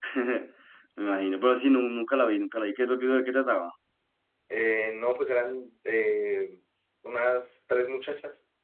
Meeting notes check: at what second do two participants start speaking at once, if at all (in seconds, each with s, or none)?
none